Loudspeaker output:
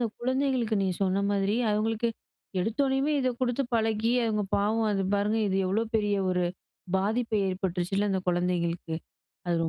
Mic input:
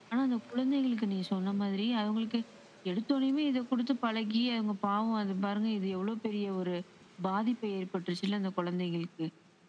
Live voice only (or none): none